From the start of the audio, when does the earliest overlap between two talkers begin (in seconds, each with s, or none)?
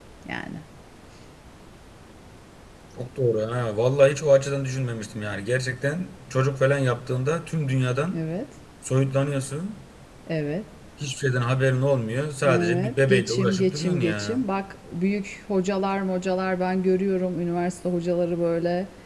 12.4 s